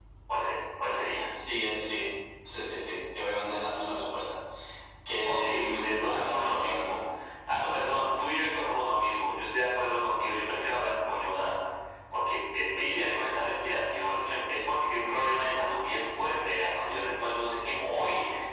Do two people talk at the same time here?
Yes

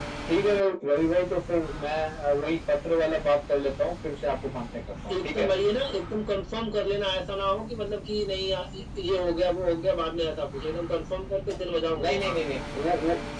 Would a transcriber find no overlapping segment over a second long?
Yes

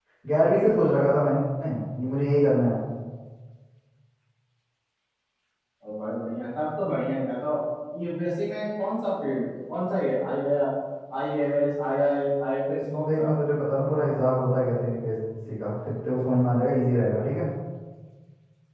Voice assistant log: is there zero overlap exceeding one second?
Yes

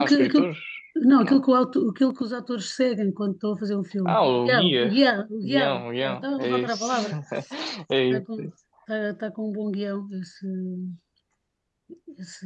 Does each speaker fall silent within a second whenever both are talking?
No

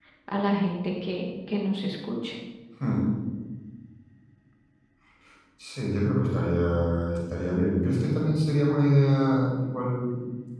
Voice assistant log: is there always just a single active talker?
Yes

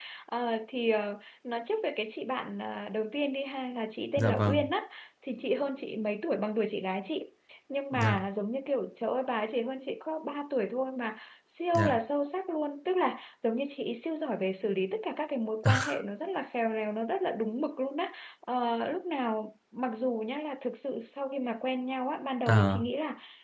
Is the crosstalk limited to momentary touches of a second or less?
Yes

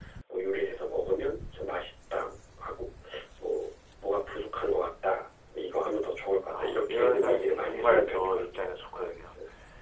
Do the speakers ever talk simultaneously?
Yes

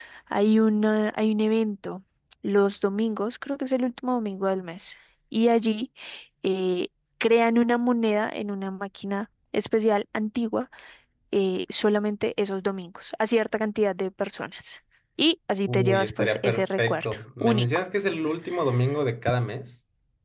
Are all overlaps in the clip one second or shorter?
No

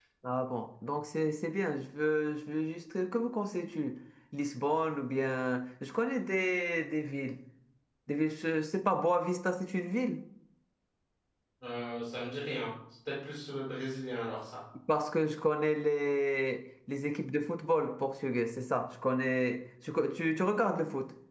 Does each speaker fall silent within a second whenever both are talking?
Yes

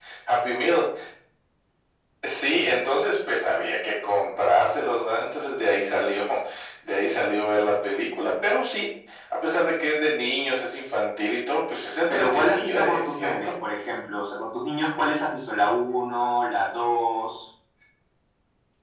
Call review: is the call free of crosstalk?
No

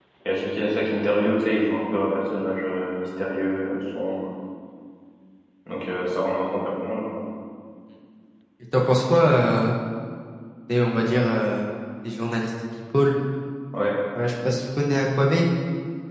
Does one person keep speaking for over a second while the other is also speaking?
No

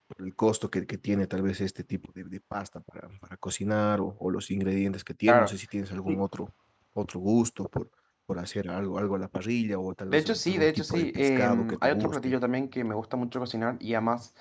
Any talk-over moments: Yes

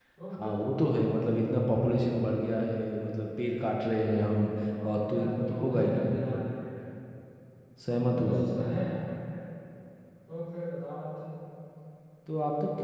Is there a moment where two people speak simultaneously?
Yes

